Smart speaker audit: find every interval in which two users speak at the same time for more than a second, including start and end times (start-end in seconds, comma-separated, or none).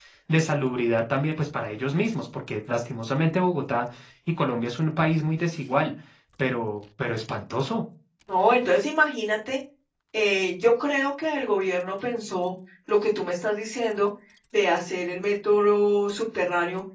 none